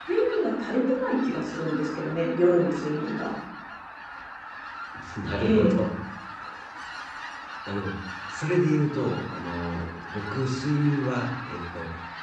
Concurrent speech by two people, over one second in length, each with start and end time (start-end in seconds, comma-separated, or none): none